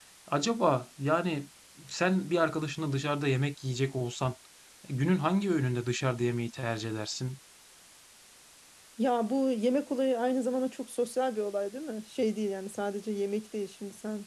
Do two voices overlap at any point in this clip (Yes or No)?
No